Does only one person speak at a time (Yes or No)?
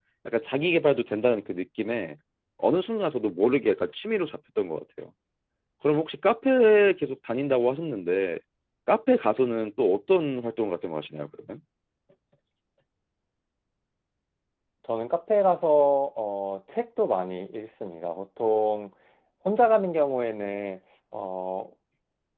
Yes